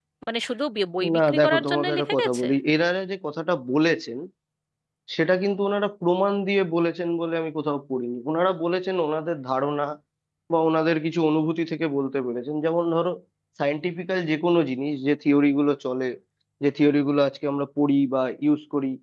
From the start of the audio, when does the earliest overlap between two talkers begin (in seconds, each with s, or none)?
1.1 s